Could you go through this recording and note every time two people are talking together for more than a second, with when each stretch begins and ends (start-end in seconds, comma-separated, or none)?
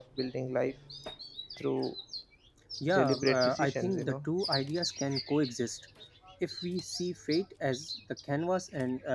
2.9-4.3